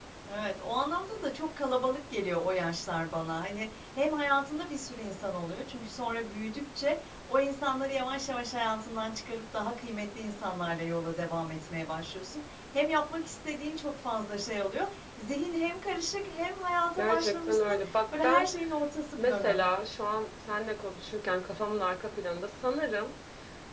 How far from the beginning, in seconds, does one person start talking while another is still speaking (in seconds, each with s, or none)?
17.0 s